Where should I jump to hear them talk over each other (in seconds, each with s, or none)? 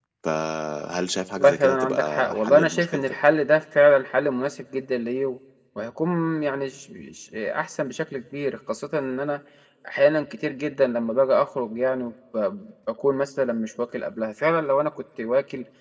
1.4 s